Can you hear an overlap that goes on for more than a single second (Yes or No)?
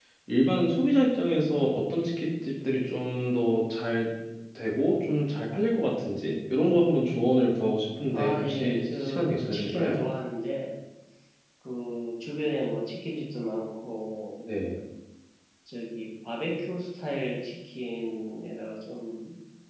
Yes